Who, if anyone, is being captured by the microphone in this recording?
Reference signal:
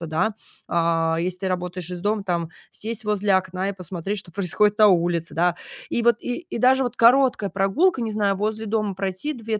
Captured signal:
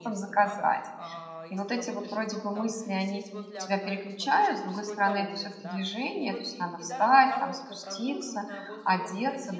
both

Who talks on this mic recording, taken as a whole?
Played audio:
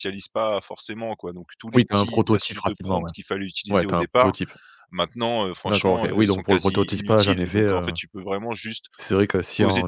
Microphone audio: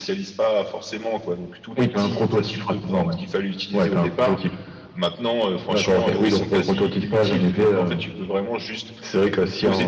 echo only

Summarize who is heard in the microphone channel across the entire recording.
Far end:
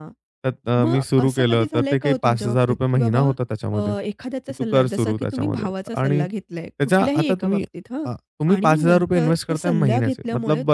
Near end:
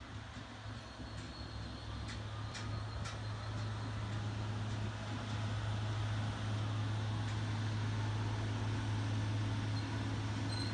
neither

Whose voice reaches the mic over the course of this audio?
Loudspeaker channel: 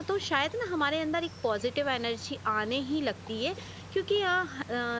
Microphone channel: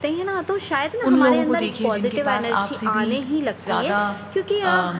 both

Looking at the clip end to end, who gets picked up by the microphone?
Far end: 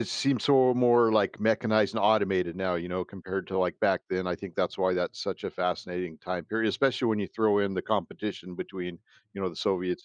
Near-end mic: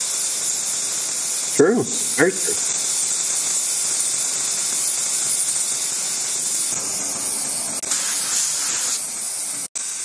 user only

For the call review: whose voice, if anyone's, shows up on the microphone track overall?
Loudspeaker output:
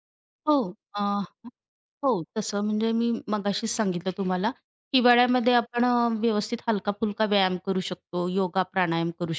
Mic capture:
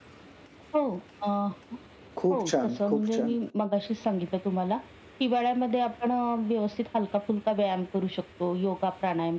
both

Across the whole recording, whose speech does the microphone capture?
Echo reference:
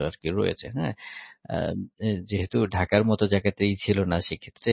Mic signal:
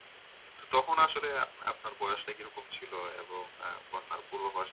user only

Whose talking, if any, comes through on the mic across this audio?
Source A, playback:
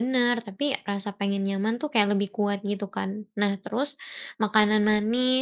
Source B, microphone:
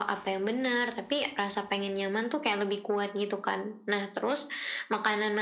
echo only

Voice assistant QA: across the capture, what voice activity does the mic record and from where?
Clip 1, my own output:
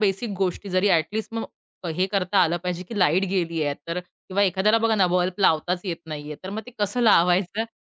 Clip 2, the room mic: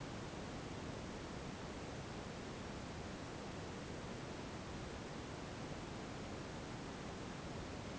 neither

